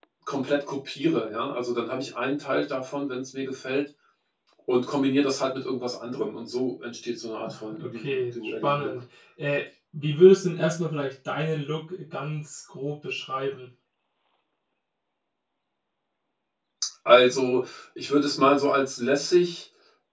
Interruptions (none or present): present